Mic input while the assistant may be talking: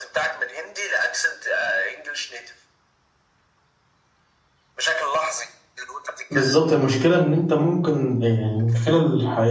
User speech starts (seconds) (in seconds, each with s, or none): 6.3 s